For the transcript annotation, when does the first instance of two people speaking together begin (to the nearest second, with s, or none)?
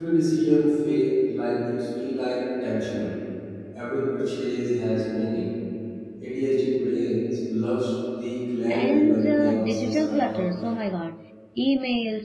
9 s